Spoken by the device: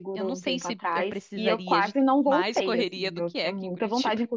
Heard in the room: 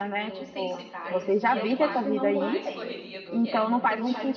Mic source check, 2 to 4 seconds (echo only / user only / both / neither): both